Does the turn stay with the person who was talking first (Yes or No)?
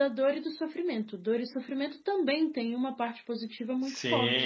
No